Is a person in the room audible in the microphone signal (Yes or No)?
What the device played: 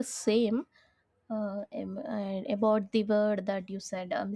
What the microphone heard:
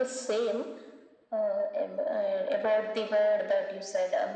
No